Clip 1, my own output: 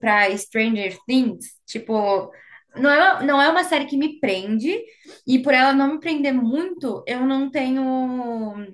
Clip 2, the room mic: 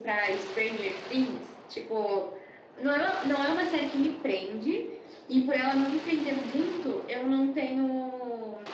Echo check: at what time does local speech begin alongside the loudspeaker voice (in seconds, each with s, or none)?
none